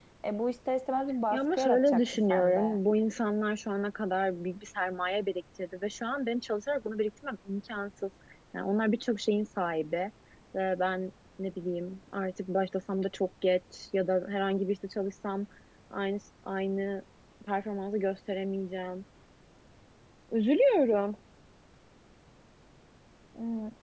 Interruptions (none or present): present